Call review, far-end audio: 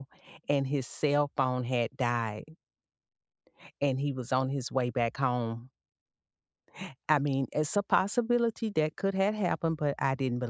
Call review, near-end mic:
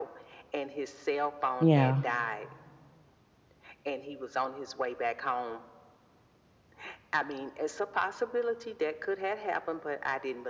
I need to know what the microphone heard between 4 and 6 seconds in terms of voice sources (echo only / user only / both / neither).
echo only